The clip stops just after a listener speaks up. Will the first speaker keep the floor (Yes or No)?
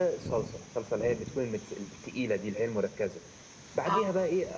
Yes